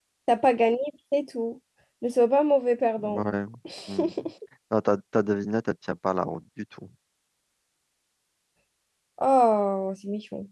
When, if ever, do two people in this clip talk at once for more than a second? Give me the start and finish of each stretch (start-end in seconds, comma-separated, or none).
none